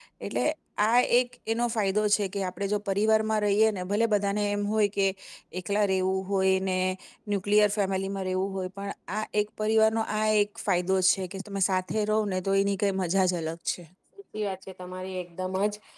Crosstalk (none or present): none